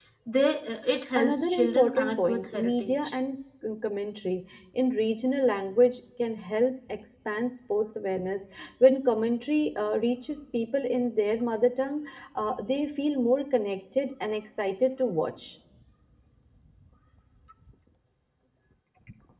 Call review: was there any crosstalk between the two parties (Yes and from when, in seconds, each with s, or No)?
Yes, from 1.2 s